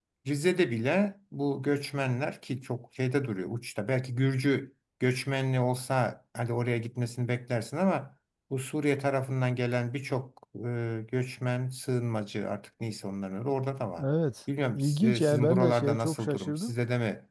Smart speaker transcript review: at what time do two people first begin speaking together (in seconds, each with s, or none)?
14.7 s